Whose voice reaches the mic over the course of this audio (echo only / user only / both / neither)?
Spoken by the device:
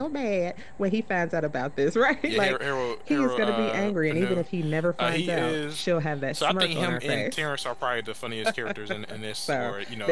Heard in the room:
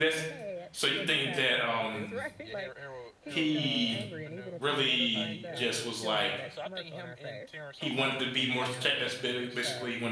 both